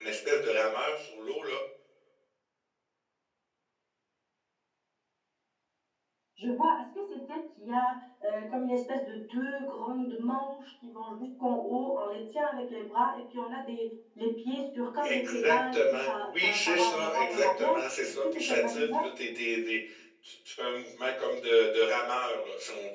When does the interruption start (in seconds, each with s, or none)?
15.0 s